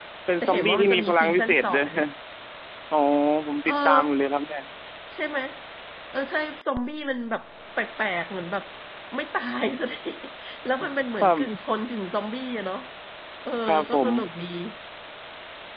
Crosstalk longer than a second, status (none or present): present